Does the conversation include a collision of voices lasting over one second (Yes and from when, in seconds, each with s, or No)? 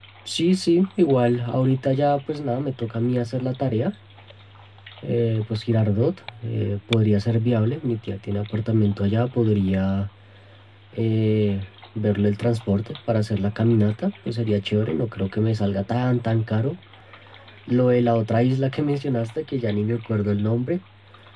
No